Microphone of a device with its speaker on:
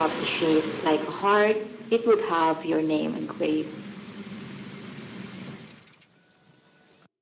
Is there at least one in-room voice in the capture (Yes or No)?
No